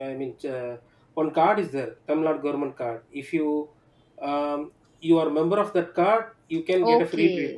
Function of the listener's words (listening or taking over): taking over